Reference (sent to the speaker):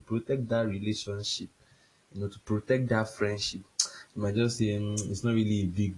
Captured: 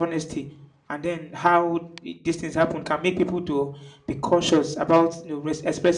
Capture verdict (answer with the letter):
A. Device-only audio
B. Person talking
B